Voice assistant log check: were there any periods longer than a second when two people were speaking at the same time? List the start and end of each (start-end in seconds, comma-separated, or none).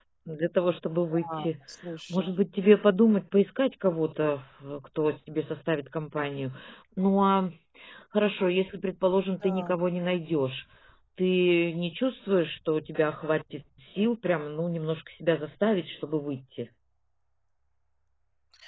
none